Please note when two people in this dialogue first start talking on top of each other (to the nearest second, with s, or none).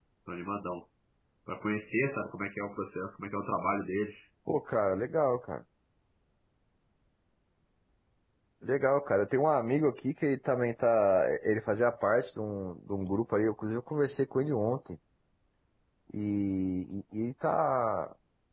none